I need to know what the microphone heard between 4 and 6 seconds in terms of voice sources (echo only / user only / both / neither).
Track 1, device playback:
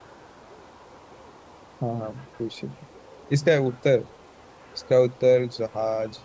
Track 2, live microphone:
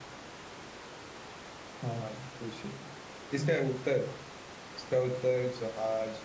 echo only